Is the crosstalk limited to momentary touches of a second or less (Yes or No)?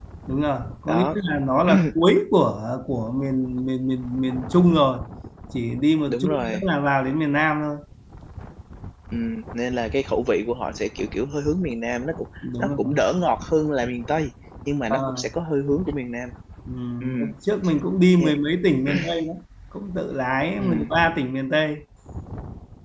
Yes